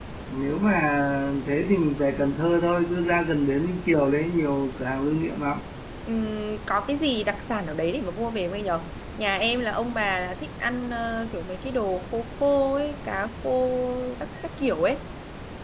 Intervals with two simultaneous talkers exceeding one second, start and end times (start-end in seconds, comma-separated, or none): none